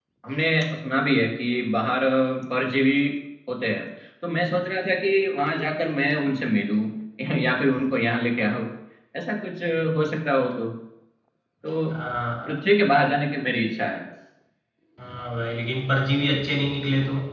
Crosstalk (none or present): none